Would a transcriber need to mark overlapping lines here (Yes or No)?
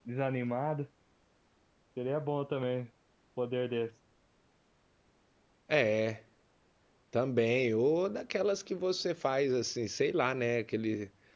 No